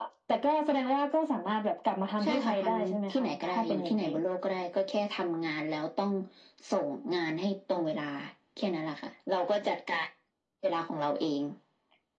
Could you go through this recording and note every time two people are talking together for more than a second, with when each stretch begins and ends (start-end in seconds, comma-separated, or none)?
2.2-4.1